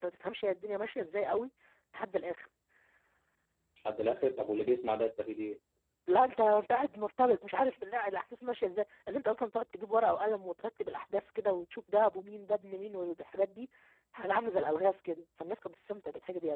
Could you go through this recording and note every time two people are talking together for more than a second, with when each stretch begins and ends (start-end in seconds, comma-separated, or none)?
none